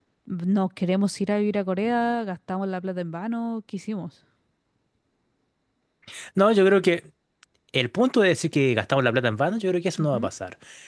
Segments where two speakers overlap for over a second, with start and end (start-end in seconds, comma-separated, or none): none